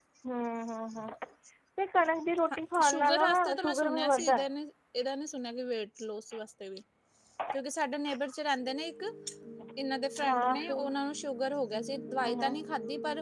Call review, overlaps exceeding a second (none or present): present